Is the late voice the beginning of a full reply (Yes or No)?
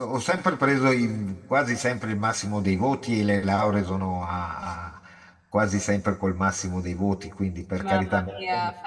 Yes